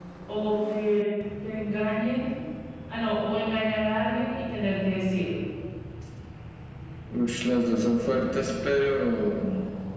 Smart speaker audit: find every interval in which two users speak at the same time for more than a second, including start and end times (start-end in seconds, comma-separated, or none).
none